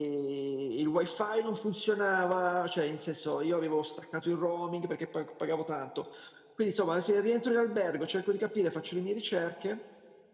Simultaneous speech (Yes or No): No